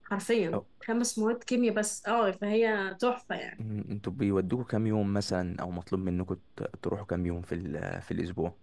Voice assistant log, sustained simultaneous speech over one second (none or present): none